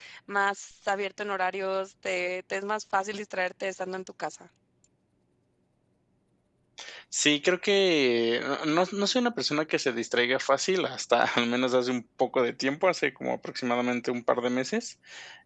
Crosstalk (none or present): none